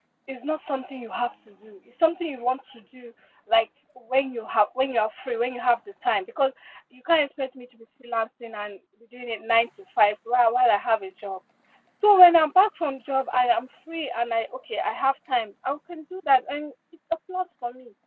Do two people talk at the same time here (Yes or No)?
No